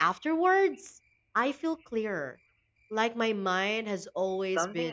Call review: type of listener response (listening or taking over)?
taking over